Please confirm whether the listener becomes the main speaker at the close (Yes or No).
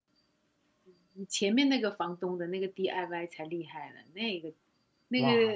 Yes